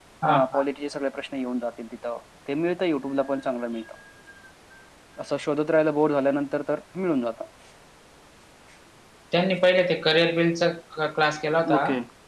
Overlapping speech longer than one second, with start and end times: none

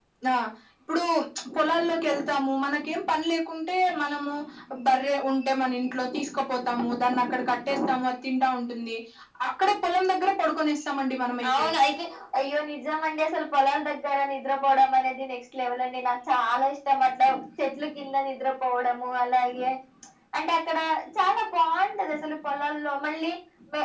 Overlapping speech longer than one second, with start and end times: none

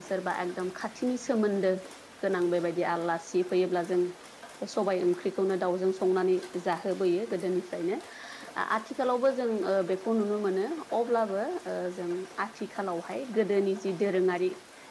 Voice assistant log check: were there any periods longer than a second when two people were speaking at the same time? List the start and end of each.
none

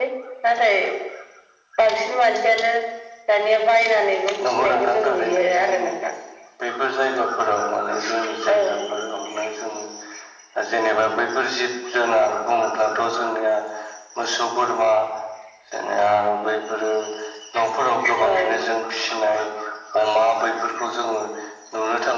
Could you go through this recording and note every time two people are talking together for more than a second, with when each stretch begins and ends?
4.5-5.9

